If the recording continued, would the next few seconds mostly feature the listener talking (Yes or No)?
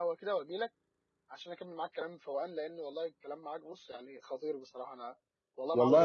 Yes